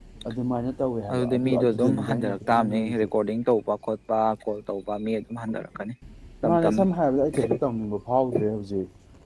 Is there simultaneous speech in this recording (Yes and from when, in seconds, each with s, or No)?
Yes, from 1.1 s